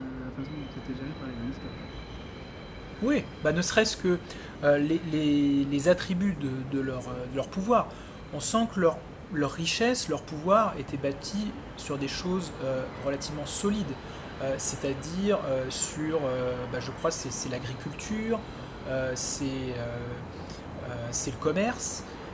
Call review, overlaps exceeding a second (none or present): none